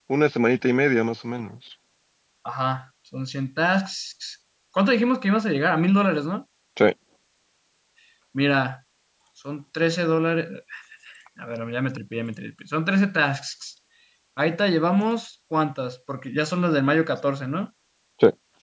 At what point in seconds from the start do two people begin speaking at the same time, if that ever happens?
none

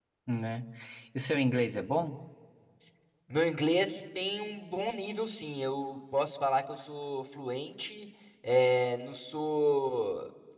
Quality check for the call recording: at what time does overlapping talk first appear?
none

